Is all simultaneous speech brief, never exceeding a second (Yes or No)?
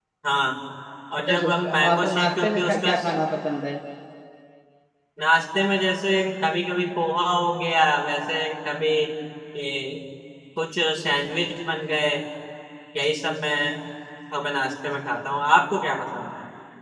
No